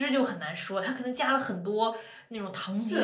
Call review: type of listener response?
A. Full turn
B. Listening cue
A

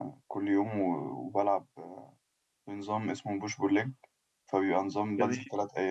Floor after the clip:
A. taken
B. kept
B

